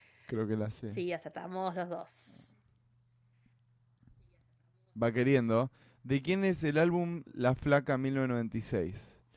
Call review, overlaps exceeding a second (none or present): none